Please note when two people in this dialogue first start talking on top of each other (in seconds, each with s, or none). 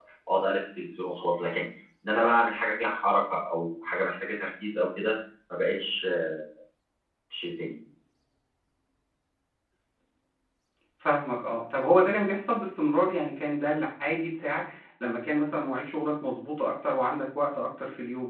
none